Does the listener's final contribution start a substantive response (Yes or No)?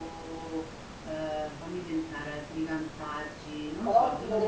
Yes